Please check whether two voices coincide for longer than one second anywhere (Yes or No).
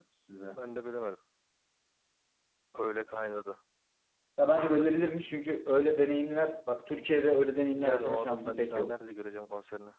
Yes